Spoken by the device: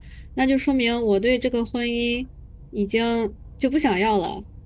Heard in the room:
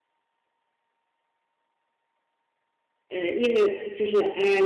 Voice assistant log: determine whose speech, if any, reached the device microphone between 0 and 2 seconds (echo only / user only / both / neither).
neither